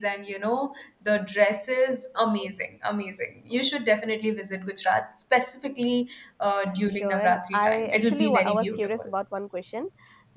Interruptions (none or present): present